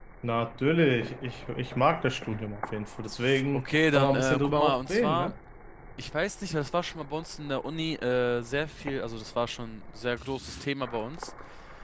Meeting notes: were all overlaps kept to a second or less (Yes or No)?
No